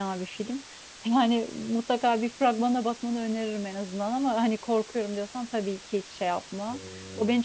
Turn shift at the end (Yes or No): No